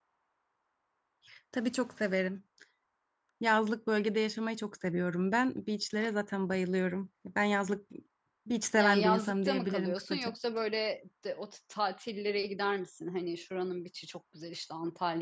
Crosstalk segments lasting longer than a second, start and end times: 8.8-10.3

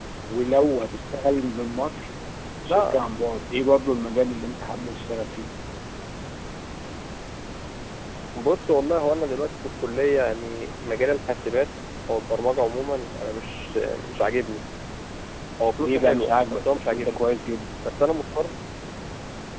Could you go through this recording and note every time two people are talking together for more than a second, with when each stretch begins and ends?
15.8-17.3

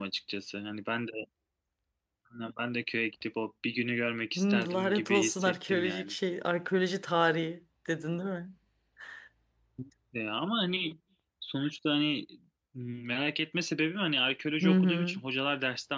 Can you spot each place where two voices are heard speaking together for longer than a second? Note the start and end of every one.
4.4-6.1

